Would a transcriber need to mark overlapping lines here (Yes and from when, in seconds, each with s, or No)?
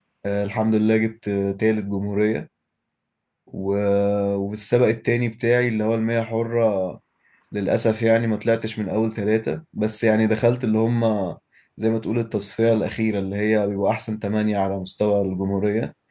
No